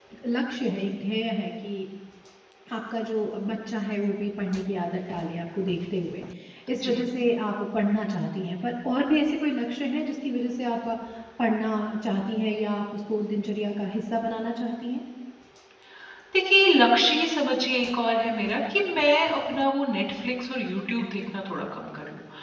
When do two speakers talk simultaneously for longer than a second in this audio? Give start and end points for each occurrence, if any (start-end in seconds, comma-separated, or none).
none